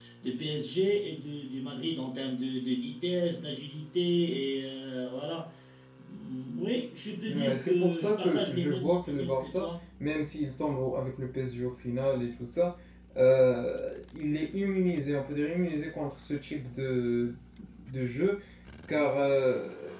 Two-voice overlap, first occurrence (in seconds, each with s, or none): 7.3 s